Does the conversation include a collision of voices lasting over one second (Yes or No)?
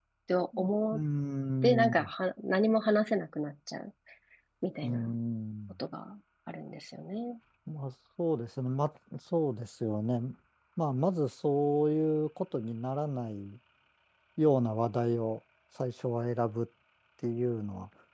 No